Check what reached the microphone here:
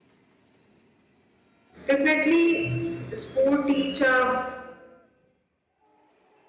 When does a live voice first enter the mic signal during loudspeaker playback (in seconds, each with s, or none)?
1.9 s